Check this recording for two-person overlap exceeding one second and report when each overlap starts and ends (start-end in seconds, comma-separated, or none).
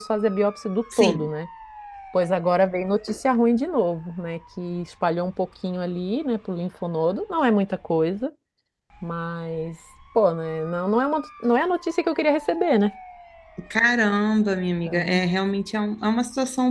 none